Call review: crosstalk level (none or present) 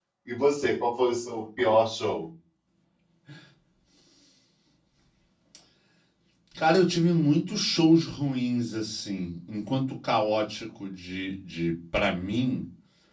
none